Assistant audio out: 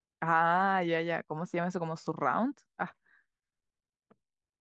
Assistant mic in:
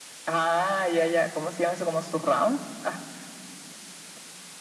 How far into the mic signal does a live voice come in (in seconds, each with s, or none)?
none